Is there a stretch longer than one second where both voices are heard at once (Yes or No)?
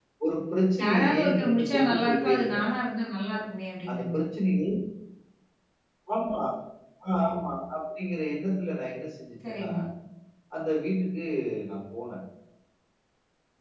Yes